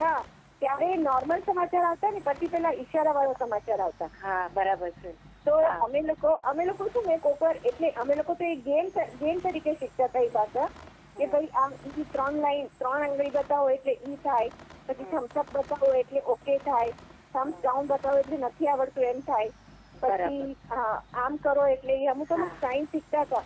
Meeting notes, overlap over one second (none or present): none